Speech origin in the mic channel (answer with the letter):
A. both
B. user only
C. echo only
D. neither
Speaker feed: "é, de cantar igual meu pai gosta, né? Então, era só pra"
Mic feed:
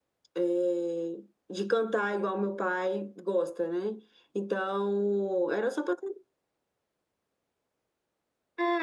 C